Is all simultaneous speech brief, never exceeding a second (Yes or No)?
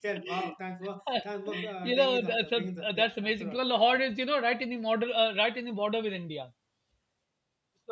No